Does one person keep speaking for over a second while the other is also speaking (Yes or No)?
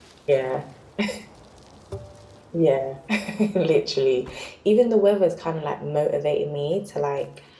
No